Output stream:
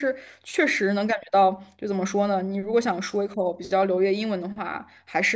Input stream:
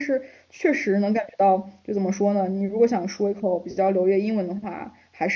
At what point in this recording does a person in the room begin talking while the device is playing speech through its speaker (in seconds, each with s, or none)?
none